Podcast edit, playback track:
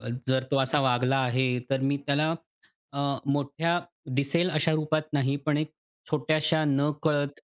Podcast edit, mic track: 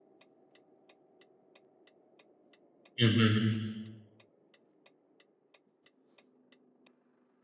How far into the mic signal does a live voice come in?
3.0 s

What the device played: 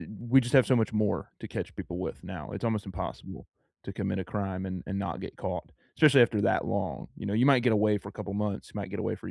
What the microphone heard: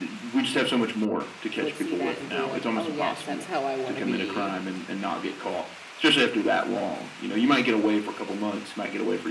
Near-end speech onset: 1.5 s

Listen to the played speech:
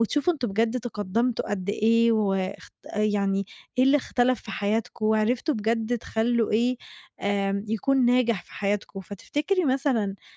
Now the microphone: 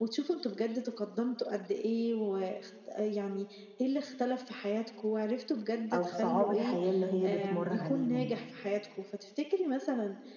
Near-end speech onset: 5.9 s

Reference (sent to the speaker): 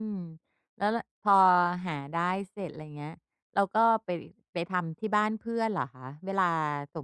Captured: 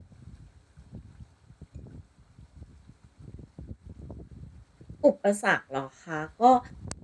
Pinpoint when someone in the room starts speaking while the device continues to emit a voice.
5.0 s

